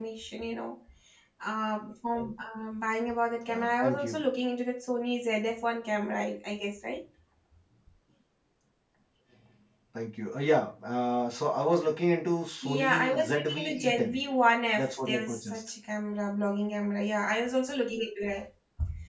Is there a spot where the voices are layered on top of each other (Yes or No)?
Yes